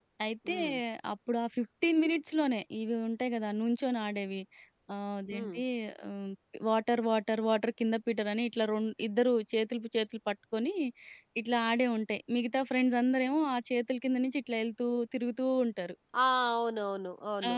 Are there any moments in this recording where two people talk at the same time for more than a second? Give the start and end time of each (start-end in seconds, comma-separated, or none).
none